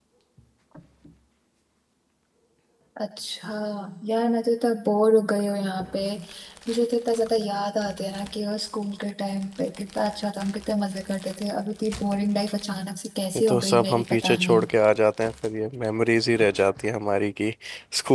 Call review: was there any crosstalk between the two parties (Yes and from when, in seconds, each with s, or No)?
Yes, from 13.3 s